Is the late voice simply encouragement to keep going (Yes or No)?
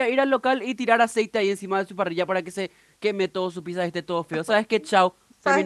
No